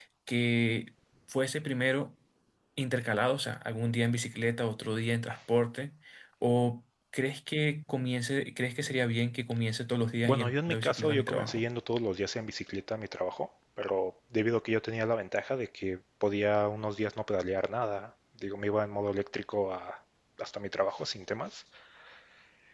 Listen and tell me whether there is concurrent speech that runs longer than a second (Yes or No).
Yes